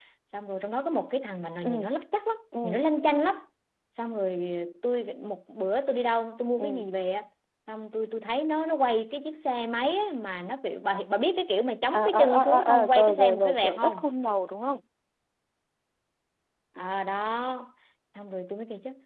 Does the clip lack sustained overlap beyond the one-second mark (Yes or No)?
No